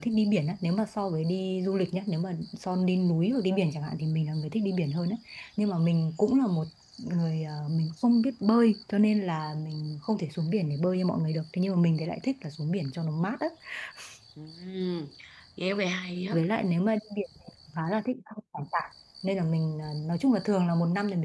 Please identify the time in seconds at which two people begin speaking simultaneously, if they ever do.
none

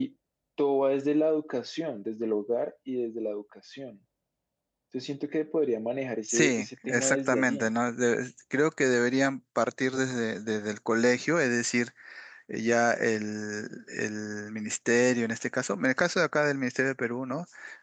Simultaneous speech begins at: 6 s

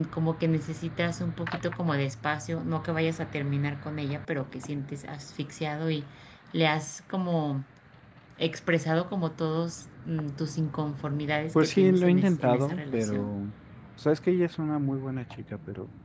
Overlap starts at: 12 s

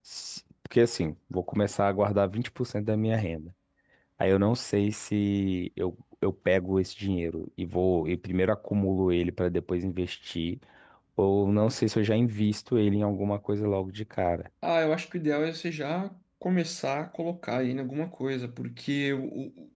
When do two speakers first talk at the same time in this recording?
none

